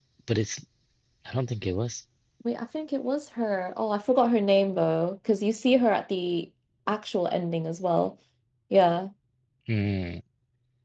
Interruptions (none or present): none